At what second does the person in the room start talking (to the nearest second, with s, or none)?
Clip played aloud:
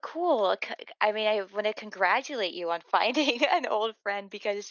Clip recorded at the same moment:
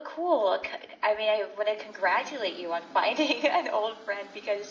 none